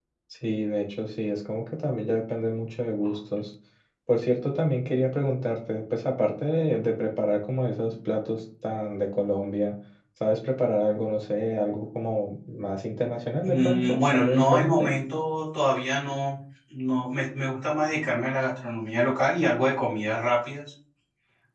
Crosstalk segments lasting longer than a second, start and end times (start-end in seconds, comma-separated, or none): 13.4-14.9